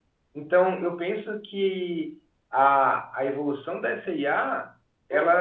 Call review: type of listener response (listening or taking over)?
listening